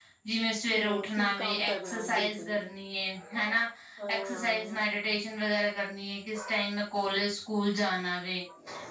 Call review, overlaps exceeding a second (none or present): present